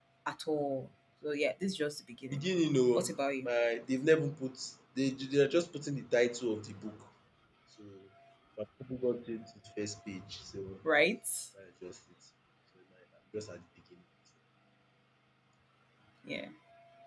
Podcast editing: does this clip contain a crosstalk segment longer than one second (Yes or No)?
No